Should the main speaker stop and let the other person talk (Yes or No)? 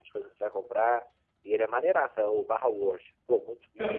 Yes